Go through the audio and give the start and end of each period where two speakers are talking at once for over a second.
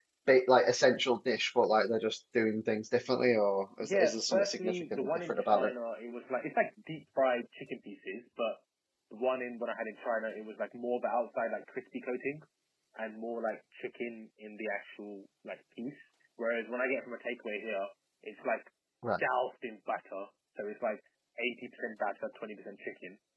3.8-5.7

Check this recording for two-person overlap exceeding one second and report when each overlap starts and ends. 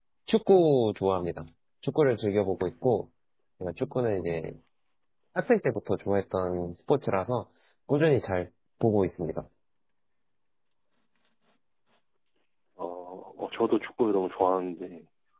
none

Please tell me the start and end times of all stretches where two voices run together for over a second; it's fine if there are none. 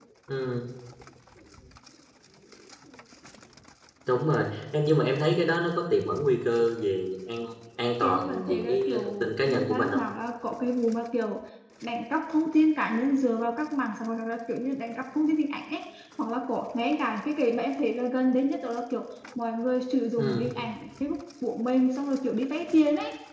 8.0-10.0

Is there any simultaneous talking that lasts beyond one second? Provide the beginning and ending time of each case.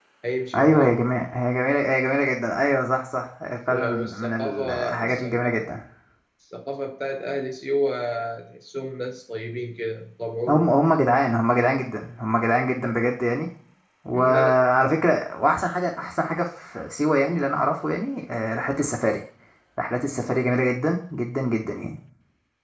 3.7-5.7

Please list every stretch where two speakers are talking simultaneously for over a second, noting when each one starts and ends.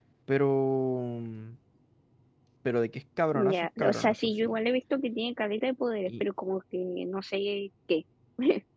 3.3-4.6

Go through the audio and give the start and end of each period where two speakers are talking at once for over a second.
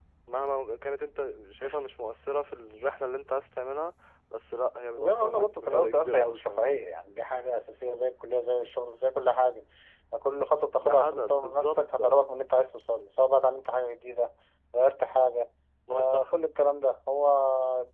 5.0-6.7, 10.8-12.2

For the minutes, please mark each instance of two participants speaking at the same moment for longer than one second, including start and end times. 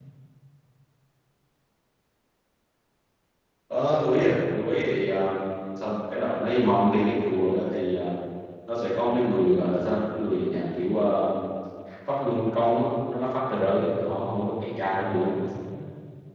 13.5-15.3

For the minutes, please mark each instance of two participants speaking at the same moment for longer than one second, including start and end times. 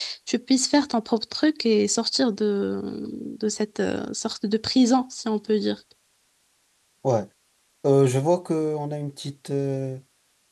none

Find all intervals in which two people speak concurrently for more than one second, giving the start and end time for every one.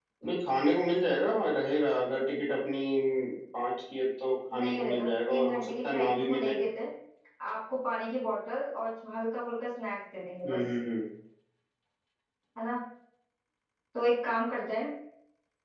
4.5-6.6

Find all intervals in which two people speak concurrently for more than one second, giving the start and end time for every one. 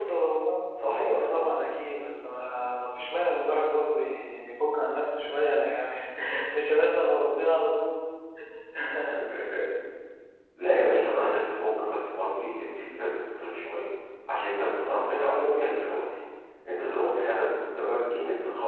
none

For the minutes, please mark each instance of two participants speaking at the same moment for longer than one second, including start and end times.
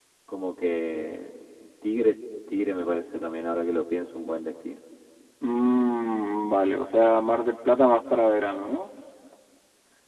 none

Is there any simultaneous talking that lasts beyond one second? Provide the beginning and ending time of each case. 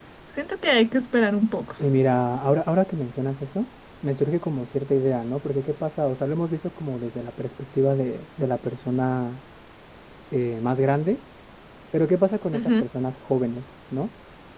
none

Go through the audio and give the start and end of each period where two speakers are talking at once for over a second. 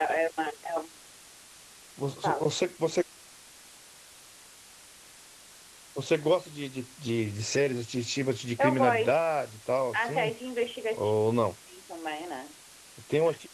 none

